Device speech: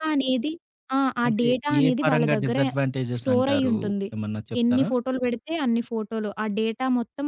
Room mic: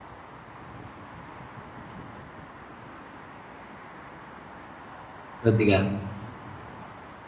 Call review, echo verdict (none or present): none